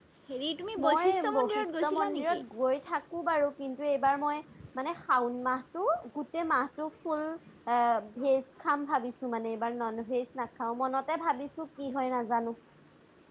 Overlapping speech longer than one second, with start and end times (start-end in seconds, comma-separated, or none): 0.8-2.4